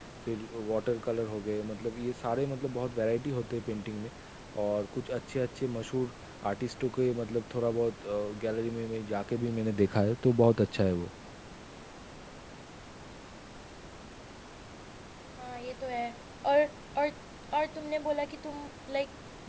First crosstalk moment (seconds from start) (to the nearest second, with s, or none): none